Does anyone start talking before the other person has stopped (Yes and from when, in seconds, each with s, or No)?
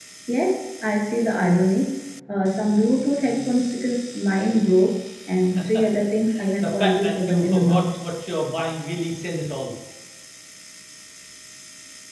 Yes, from 6.6 s